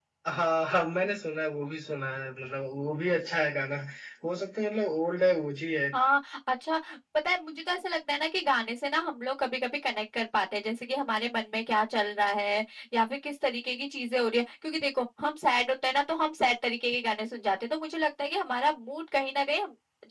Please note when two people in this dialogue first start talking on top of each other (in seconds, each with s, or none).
none